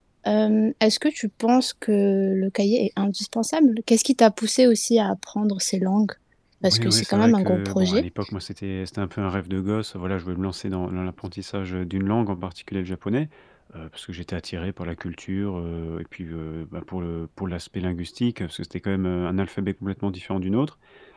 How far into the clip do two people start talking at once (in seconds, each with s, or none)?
6.7 s